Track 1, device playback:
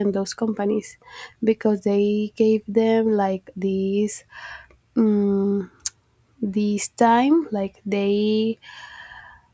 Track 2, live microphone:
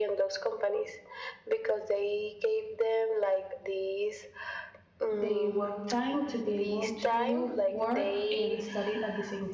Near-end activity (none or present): present